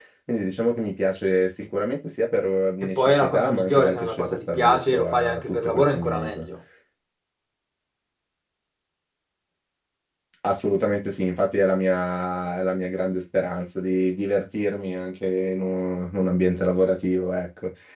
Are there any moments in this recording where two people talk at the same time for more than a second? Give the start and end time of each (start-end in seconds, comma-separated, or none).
2.8-6.4